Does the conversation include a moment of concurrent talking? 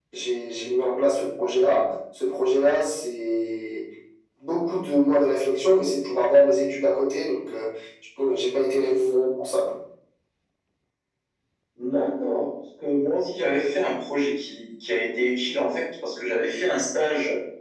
No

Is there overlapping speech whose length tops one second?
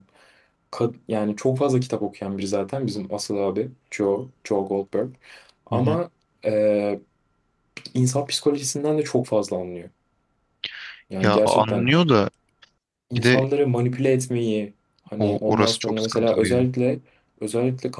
Yes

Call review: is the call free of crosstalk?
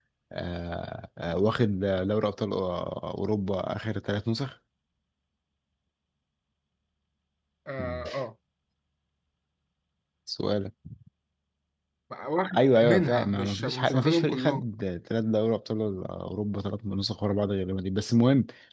No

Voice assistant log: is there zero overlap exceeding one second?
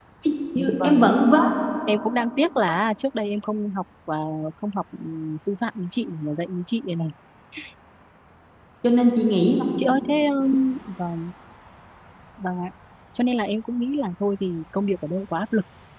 Yes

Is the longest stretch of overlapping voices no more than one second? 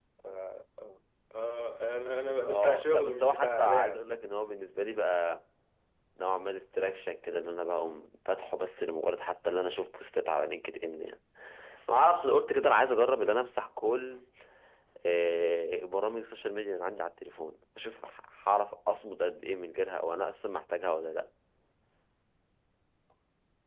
No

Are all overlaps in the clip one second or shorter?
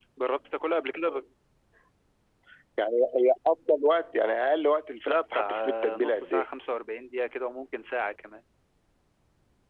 No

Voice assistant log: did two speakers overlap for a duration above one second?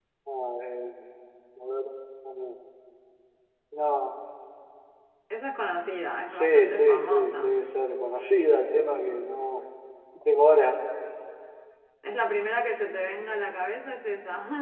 Yes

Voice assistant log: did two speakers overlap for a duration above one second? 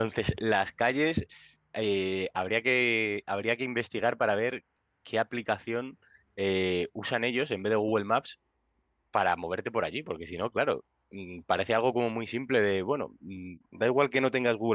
No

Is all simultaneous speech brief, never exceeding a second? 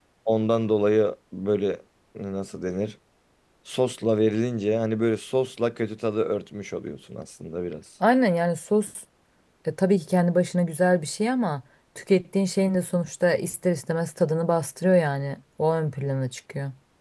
Yes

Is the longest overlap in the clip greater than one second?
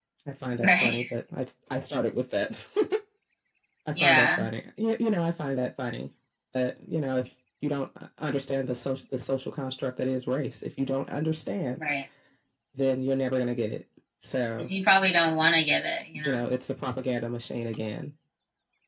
No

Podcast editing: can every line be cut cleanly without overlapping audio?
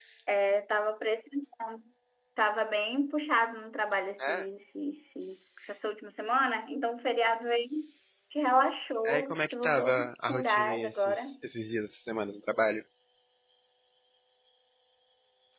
No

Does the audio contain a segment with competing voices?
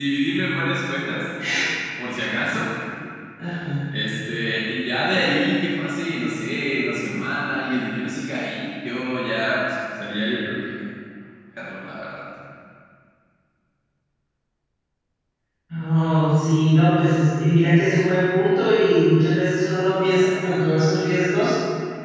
No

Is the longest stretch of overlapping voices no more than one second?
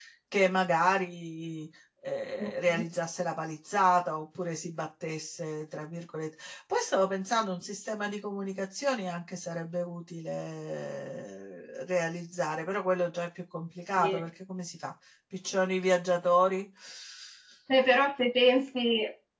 Yes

